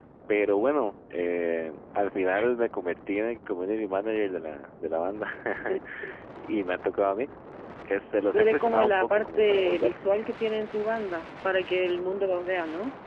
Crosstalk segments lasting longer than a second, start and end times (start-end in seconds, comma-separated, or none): 8.3-10.0